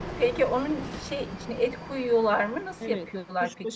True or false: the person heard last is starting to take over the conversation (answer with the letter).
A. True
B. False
A